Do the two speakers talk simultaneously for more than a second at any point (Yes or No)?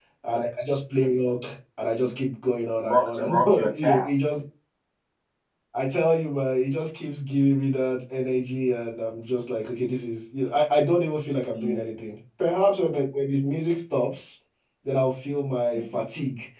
Yes